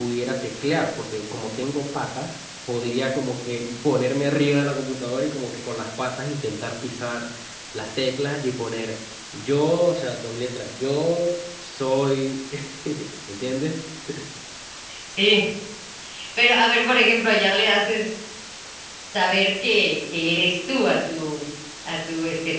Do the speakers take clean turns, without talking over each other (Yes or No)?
Yes